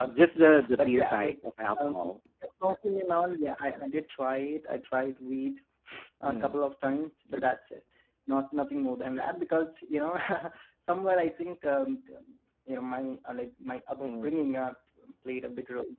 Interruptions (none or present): present